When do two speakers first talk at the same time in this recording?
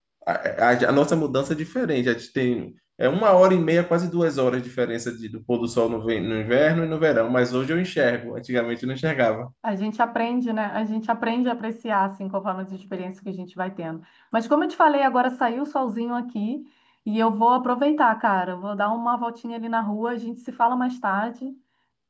none

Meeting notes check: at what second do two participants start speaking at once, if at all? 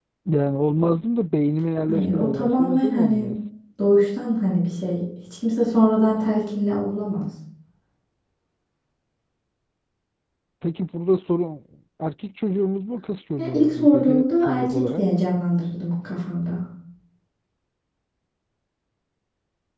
1.9 s

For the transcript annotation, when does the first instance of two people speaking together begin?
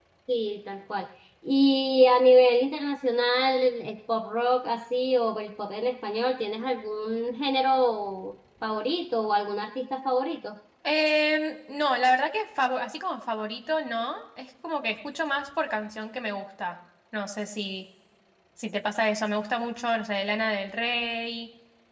none

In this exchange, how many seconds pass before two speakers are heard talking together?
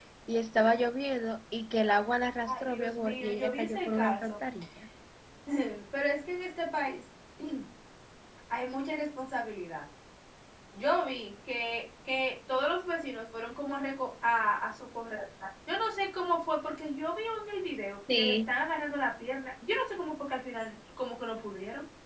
2.4 s

